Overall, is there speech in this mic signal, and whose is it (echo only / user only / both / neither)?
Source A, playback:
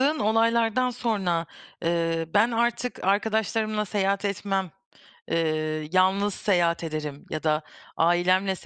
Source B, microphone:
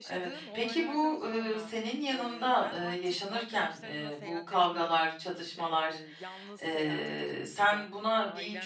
both